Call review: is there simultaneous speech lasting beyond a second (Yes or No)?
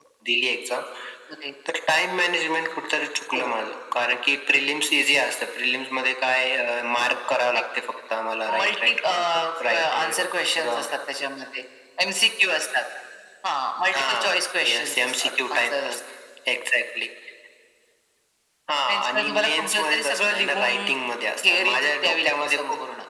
Yes